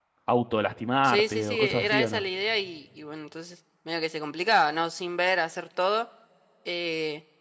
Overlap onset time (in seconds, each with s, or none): 1.0 s